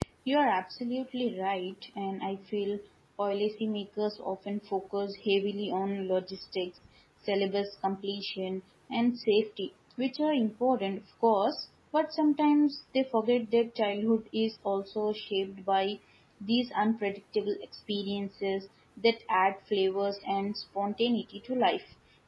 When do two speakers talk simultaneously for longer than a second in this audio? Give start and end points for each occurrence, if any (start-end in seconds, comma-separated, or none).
none